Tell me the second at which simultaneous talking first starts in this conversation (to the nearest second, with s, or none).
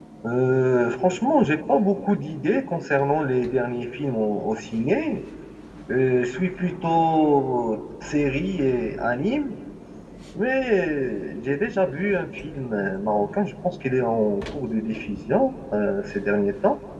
none